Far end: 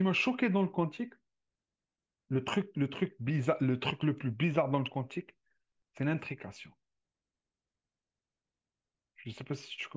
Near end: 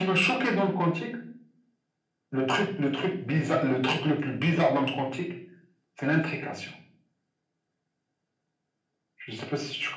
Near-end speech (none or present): none